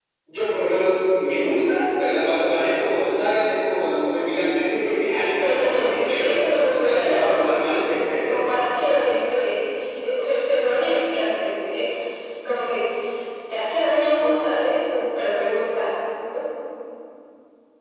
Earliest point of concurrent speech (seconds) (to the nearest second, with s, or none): 5 s